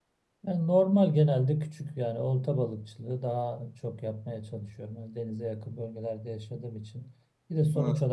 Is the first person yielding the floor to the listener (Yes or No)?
No